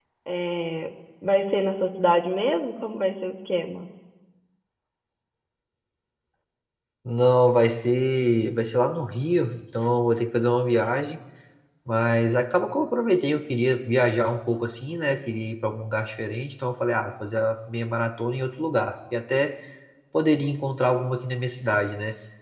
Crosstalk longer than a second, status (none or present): none